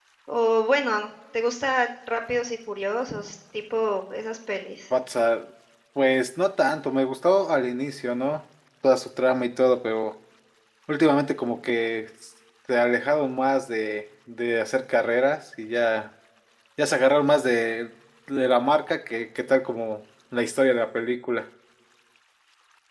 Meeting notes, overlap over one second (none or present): none